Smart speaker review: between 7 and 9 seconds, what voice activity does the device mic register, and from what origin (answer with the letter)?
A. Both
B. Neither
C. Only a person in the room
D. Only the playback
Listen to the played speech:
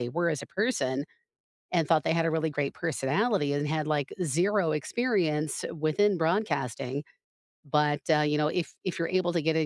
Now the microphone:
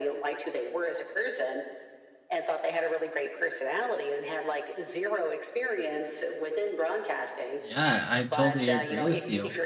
A